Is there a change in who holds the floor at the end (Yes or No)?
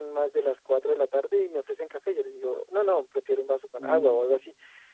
No